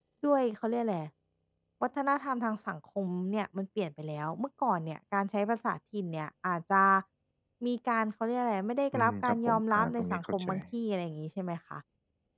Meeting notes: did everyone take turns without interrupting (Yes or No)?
No